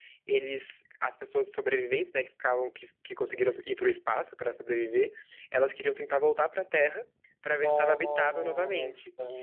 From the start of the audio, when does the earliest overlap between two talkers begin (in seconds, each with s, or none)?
7.6 s